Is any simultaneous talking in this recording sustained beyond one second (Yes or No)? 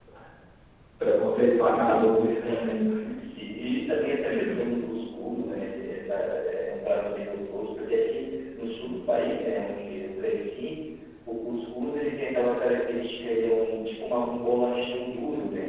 No